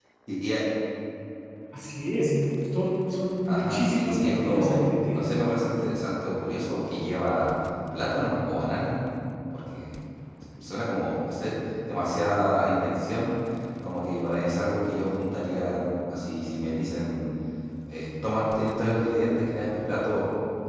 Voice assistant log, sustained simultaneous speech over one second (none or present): present